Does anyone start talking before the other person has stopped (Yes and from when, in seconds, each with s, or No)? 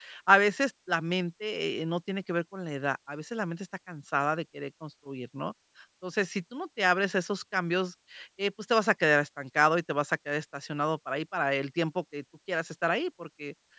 No